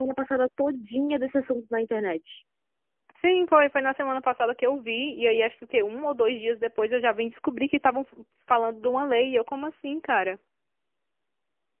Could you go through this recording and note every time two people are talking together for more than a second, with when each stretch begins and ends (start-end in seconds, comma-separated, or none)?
none